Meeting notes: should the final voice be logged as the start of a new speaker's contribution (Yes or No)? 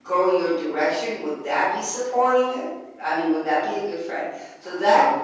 No